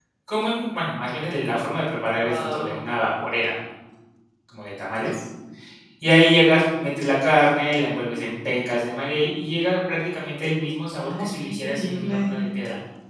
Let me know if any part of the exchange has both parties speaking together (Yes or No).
Yes